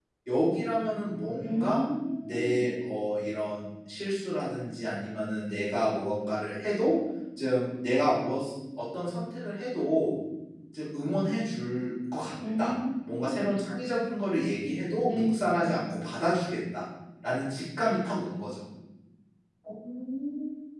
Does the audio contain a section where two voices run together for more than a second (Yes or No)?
No